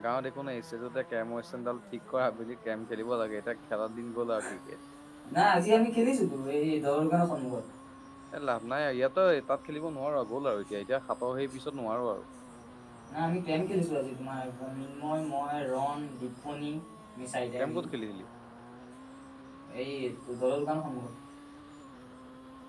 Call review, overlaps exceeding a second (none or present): none